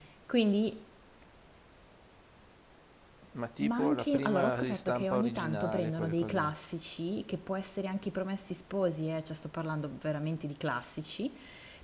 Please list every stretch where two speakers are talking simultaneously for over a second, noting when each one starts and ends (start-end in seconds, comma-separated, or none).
3.6-6.5